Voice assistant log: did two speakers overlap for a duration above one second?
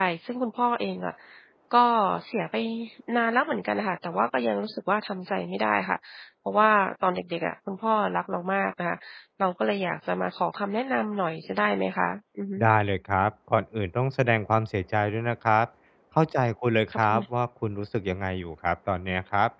No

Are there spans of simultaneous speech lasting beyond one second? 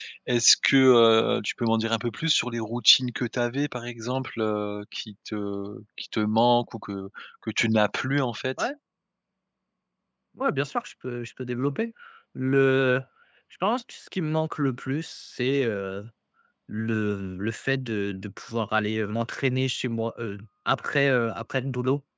No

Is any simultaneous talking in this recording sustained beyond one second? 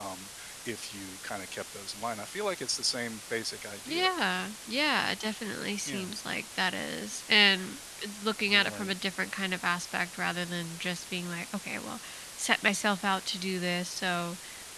No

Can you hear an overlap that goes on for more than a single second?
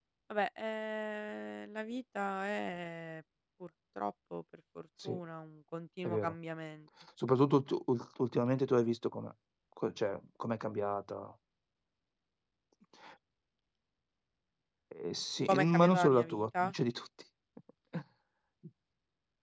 Yes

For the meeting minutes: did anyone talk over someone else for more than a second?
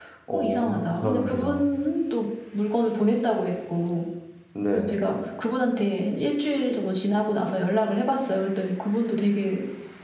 Yes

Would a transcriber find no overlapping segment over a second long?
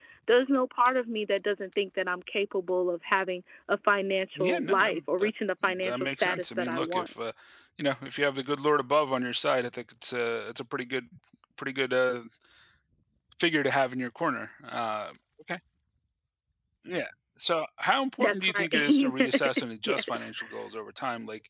No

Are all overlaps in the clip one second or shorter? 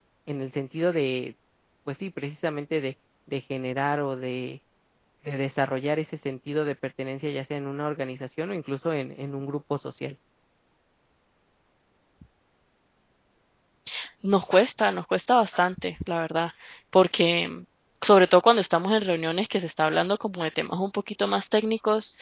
Yes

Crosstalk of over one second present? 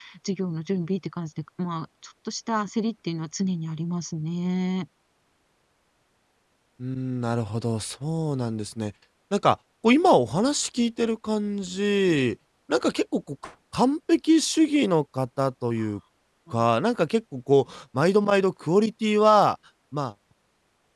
No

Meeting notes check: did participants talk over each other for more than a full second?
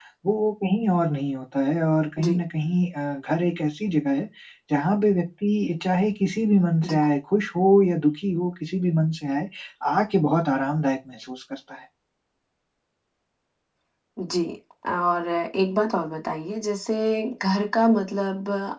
No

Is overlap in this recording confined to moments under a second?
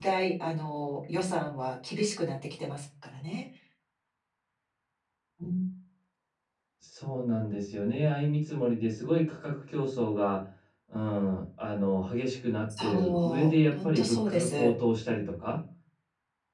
No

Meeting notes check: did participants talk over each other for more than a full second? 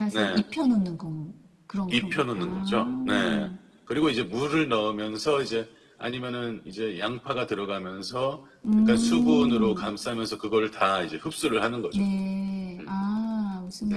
Yes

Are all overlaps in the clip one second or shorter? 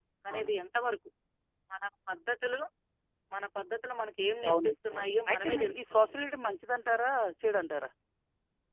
No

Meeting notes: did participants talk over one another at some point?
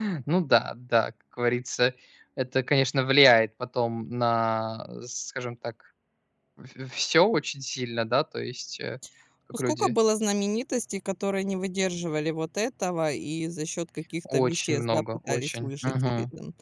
Yes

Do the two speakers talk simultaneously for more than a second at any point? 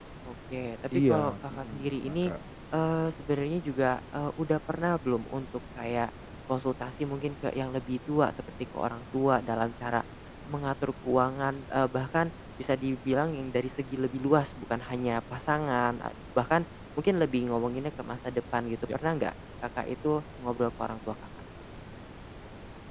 Yes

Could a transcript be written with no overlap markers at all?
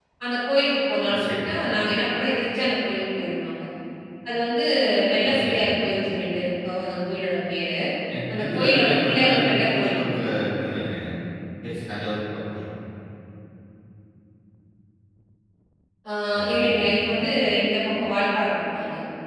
No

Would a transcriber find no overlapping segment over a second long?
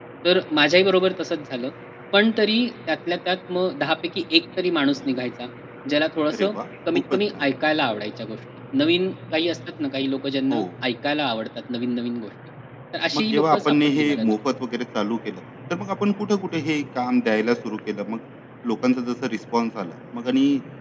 No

